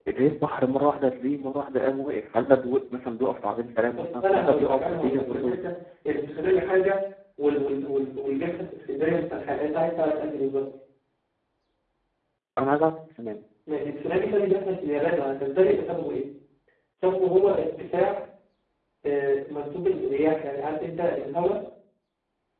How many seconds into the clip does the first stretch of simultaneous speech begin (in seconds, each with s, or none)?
4.0 s